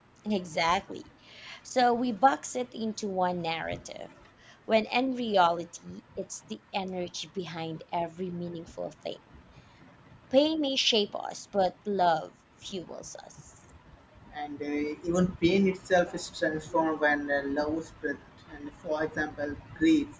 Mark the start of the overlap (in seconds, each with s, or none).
none